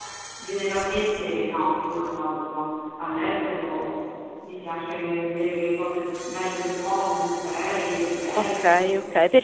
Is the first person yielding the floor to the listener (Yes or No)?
Yes